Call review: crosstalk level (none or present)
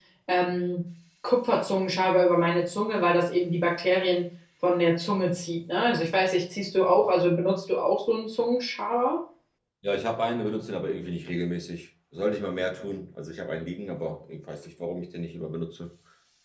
none